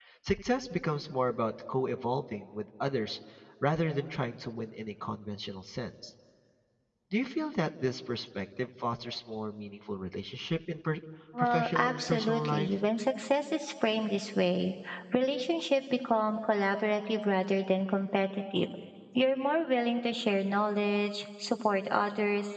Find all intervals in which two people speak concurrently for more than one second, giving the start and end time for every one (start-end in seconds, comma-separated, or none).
11.4-12.7